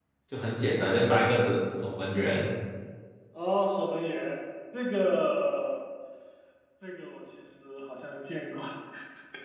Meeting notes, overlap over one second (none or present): none